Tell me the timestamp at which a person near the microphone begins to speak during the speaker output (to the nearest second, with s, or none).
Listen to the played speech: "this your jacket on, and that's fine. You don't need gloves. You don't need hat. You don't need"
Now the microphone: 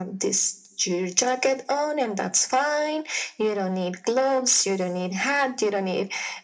none